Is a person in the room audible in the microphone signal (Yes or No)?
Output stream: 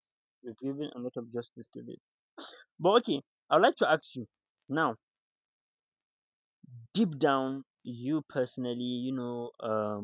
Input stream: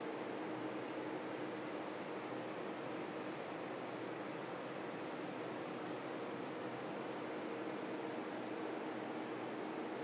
No